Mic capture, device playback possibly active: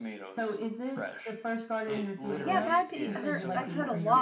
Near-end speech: present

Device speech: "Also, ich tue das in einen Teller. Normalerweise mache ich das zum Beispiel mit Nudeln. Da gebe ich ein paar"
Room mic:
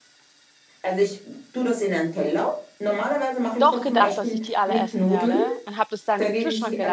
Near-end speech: present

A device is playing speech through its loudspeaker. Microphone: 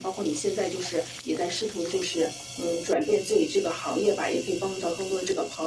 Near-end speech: none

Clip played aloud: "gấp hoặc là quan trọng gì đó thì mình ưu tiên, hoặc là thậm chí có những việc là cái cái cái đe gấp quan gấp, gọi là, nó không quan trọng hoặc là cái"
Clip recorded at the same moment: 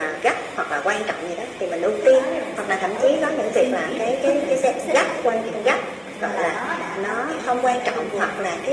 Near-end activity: present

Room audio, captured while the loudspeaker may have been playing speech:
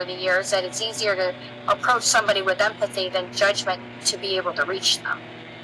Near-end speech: none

